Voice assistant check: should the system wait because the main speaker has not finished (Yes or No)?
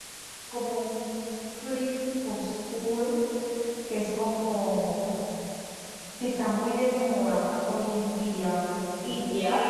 No